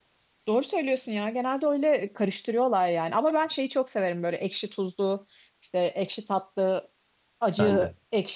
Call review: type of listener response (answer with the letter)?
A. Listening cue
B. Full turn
A